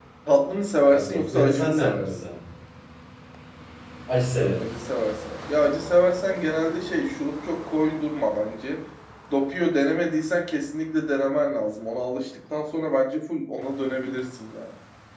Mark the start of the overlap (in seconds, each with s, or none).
0.9 s